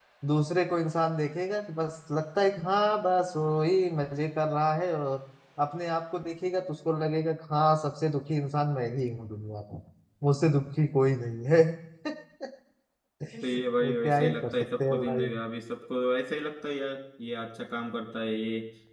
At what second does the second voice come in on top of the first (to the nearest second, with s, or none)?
13 s